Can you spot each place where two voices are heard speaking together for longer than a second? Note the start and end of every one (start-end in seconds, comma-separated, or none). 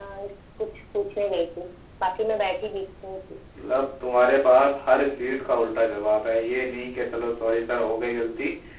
none